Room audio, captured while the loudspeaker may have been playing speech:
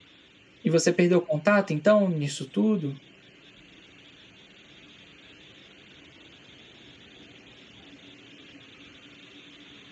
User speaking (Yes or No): Yes